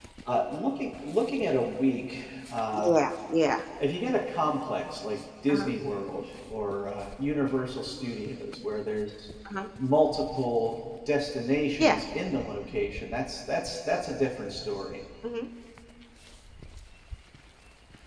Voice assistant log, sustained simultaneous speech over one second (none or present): none